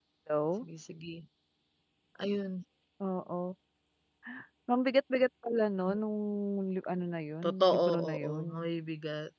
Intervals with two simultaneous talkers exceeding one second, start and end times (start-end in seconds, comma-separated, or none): 7.4-8.7